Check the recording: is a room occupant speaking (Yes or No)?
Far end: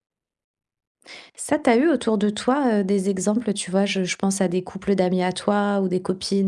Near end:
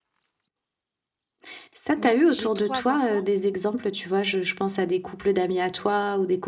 Yes